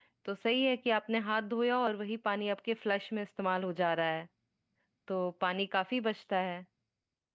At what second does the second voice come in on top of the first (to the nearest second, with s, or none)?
none